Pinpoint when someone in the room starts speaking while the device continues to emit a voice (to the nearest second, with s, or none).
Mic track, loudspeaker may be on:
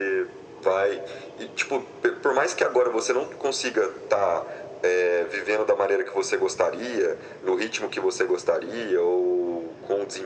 none